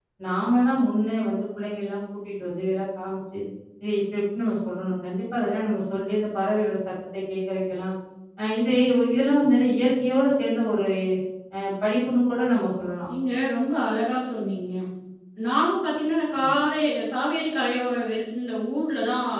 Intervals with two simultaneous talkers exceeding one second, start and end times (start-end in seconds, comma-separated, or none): none